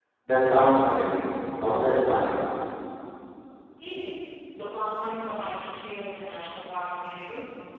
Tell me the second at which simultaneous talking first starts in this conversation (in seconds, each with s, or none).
none